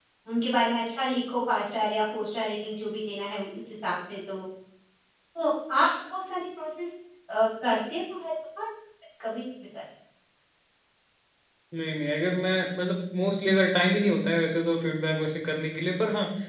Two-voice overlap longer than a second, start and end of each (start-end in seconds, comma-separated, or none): none